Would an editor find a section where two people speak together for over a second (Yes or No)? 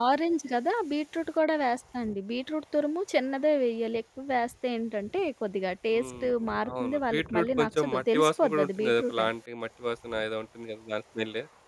Yes